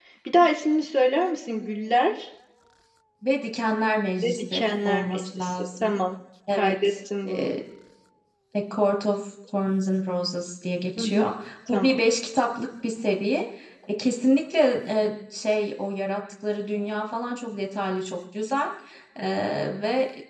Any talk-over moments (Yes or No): Yes